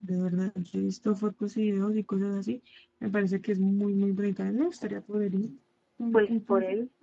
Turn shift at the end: Yes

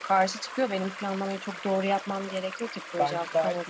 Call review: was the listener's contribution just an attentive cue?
No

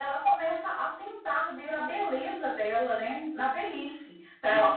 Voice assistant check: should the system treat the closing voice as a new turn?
No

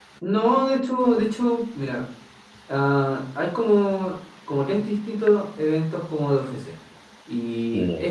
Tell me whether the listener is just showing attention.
Yes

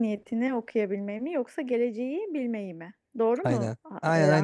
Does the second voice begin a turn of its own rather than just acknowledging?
Yes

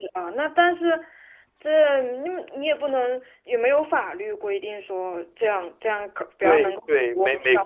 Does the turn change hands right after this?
Yes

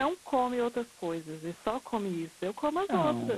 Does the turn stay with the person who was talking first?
No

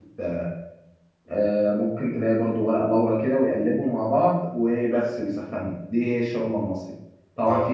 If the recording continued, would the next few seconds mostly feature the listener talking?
No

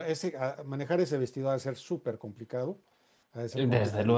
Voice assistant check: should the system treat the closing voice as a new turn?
Yes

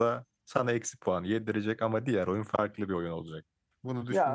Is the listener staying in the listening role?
Yes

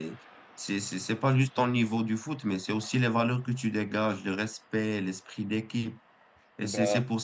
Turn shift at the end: No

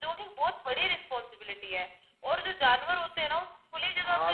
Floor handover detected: No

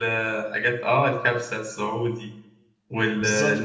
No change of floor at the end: Yes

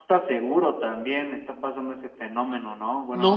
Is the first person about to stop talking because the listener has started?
Yes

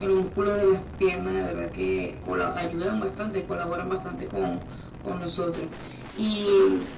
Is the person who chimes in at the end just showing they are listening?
Yes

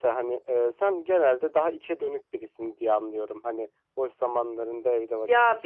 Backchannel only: No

